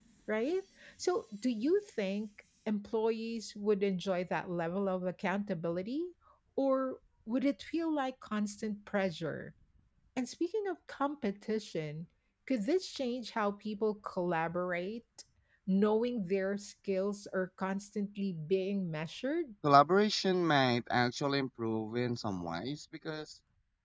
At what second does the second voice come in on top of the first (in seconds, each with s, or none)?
none